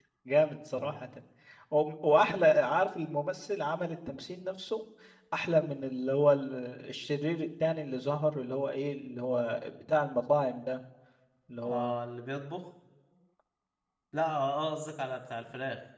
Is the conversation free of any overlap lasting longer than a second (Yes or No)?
Yes